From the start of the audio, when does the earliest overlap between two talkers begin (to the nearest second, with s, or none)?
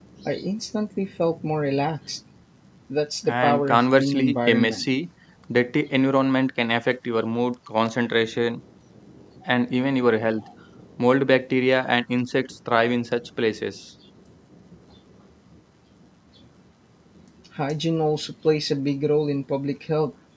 3 s